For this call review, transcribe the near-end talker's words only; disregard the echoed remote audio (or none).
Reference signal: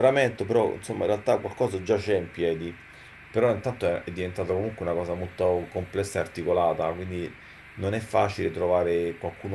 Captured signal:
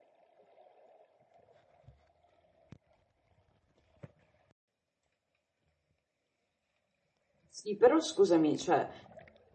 Sì, però scusami, cioè,